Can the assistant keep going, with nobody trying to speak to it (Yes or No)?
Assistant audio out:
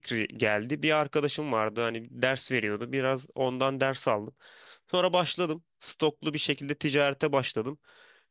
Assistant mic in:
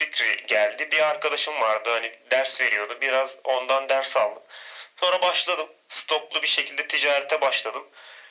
Yes